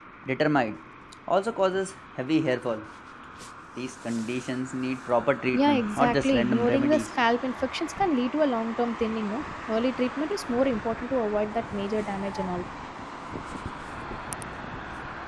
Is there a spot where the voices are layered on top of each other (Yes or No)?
Yes